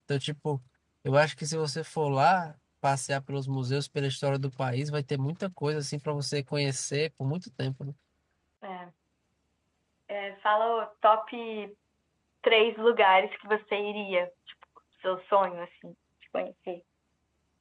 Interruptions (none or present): none